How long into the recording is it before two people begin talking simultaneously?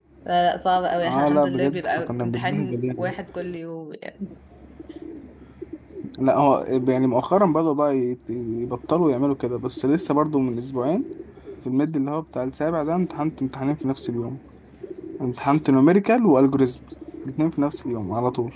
1.0 s

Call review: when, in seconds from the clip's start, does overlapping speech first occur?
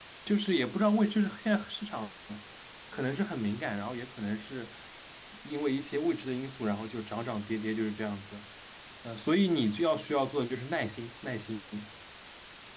none

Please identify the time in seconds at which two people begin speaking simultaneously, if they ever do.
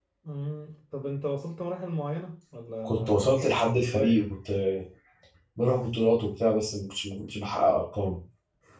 2.8 s

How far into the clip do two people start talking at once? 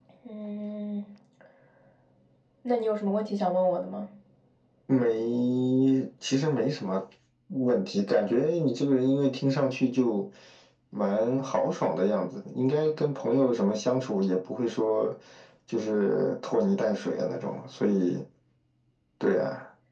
none

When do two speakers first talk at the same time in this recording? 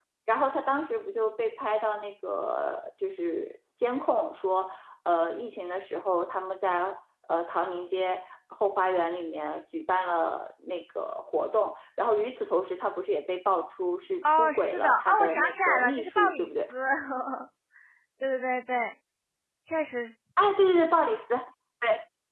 14.2 s

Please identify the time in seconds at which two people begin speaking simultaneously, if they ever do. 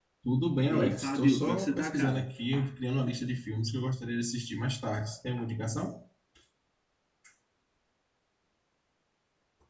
0.7 s

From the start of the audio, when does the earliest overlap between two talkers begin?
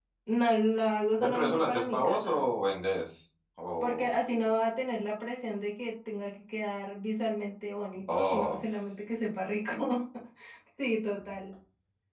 1.2 s

